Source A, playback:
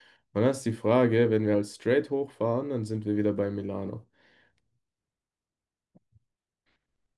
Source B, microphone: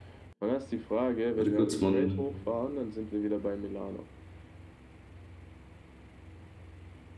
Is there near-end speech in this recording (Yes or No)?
Yes